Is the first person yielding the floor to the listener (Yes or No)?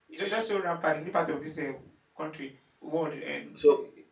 Yes